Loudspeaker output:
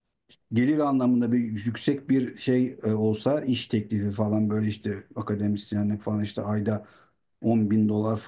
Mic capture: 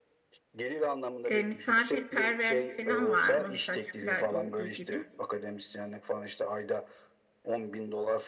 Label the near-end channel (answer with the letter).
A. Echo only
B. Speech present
B